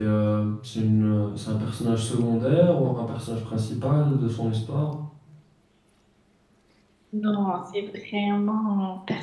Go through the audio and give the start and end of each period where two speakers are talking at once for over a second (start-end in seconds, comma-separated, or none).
none